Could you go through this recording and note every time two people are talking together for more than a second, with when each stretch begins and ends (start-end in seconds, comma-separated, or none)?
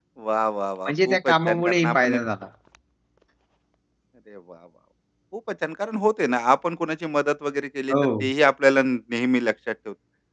0.8-2.2